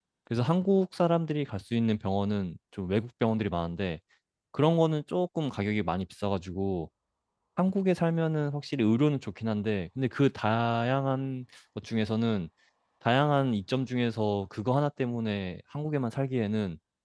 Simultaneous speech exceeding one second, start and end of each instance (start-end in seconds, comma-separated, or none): none